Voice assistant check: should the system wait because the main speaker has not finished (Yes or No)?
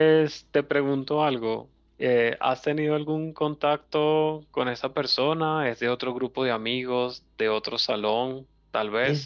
Yes